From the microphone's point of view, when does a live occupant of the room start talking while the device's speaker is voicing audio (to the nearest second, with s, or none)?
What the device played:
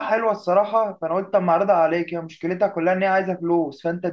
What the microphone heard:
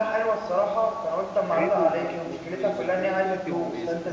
2 s